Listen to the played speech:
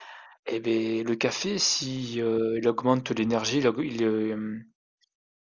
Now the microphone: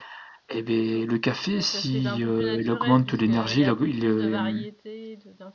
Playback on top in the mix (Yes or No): Yes